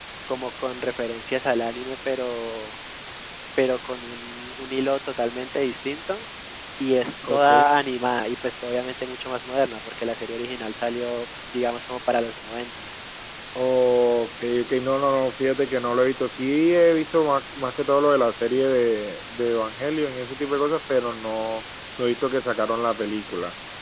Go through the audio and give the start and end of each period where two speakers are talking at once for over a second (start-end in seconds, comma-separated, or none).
none